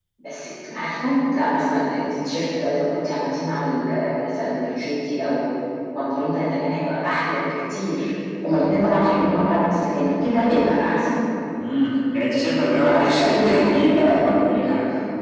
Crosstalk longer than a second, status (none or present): present